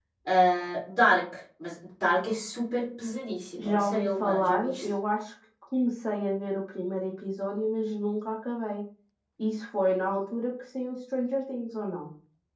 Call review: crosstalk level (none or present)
present